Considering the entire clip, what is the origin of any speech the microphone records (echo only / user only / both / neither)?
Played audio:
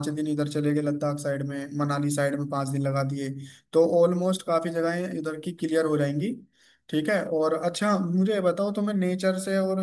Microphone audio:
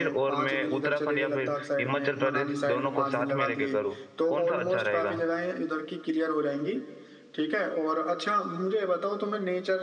both